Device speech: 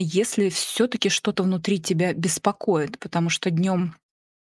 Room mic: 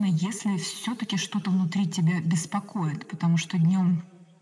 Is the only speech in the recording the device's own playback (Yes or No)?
Yes